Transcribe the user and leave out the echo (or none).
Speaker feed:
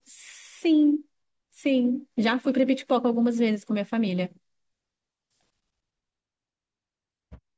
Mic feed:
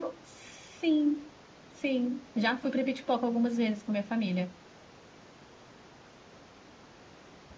none